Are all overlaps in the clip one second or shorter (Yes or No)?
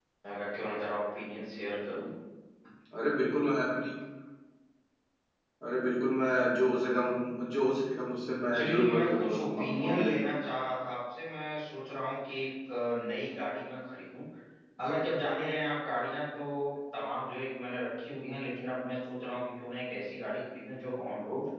No